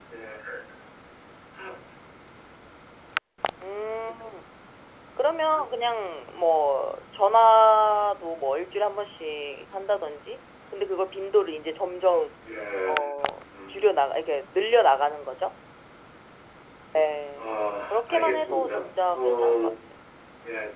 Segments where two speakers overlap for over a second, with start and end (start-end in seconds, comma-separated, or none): 17.9-19.6